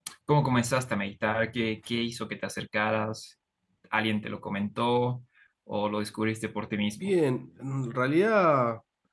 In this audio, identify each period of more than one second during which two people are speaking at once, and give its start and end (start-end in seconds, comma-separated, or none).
none